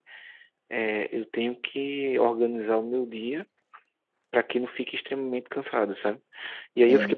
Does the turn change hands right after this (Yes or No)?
No